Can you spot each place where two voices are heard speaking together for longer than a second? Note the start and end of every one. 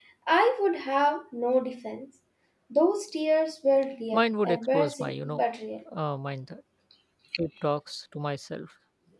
4.1-5.4

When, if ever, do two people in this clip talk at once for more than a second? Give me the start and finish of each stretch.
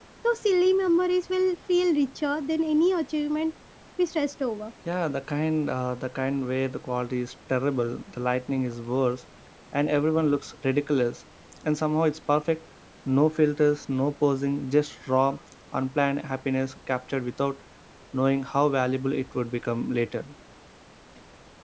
none

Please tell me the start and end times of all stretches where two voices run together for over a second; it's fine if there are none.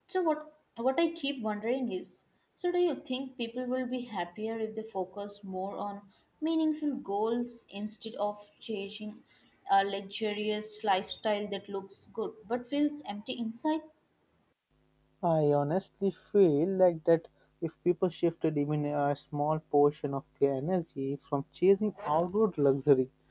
none

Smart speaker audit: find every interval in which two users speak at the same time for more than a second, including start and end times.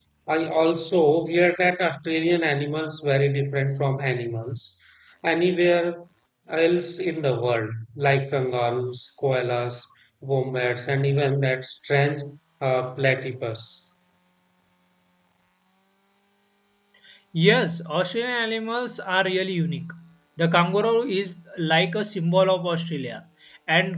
none

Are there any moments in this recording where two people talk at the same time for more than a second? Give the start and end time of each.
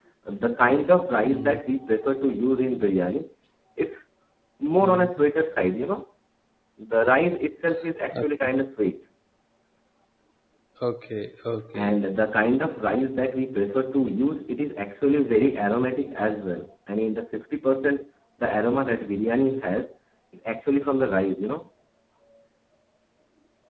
none

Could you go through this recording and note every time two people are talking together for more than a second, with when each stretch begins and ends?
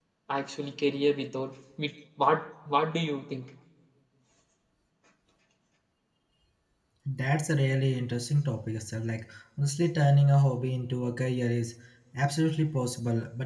none

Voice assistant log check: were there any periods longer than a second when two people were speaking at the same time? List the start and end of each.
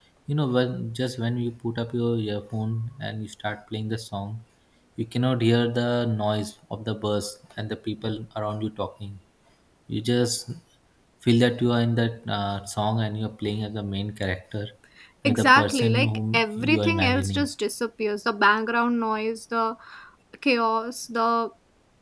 15.2-17.4

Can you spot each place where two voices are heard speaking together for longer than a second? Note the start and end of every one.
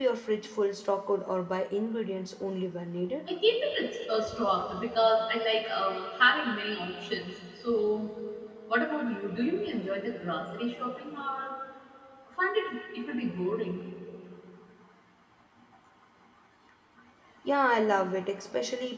none

